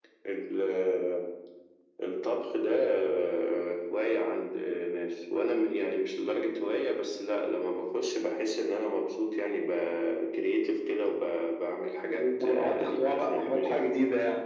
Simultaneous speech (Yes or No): Yes